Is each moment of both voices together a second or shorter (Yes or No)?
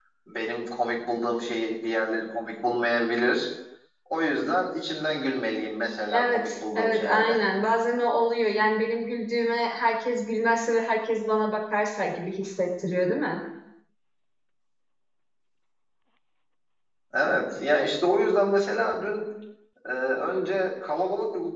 No